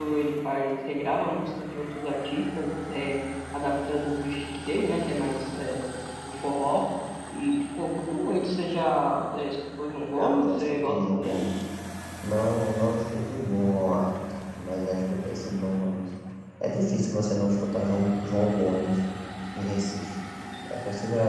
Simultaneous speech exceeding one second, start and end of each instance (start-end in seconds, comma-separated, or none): 10.2-11.4